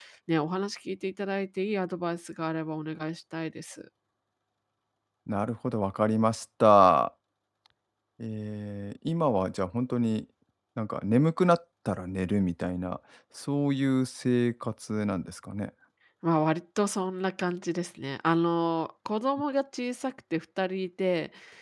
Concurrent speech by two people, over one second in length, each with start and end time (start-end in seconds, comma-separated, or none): none